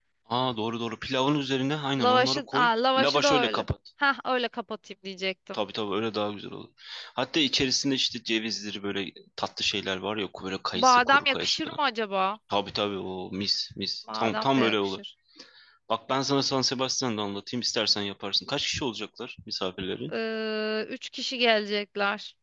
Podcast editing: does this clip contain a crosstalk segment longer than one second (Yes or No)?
Yes